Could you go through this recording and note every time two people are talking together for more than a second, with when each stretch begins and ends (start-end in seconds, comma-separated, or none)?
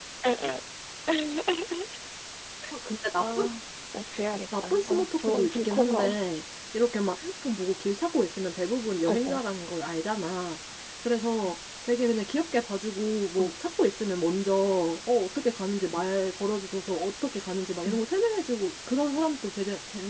4.7-6.2